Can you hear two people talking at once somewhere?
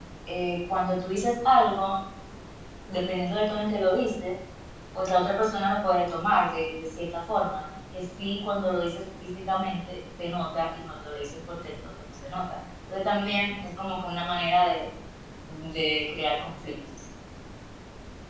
No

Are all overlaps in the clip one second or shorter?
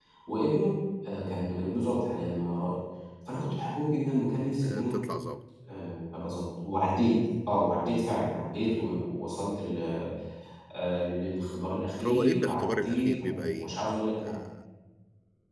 No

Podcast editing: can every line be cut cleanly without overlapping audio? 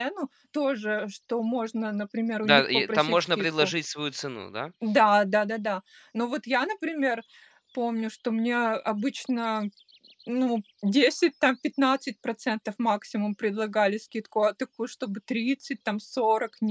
No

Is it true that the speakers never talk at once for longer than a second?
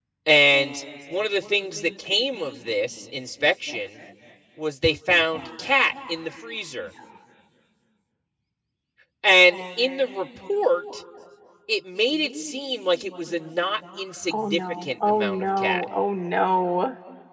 No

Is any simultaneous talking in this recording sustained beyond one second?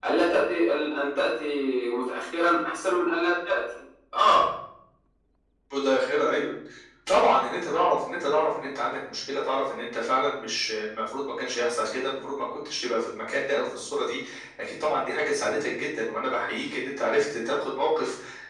No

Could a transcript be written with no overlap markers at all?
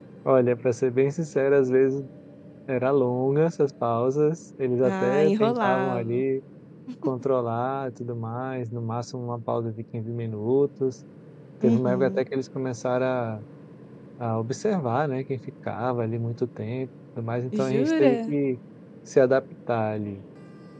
No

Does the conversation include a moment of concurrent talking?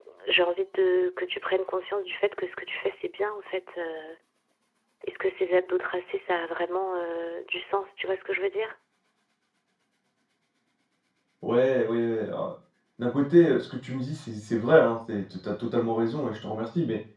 No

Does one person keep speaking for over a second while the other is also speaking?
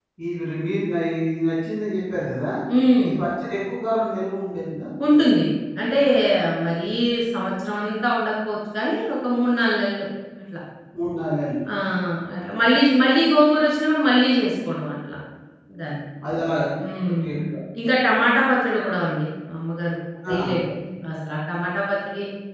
No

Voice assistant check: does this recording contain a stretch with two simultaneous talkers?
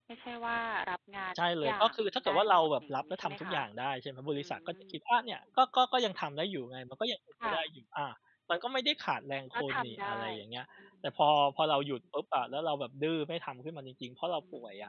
Yes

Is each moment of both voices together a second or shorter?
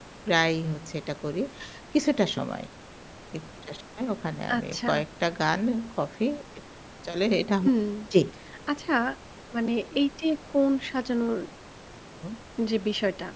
Yes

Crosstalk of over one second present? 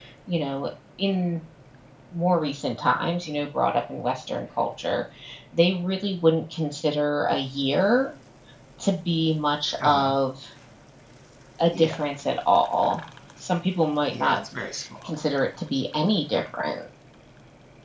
No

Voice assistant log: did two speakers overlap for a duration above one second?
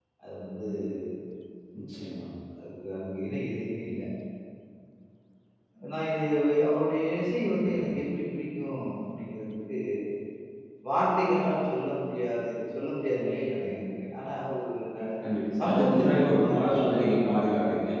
Yes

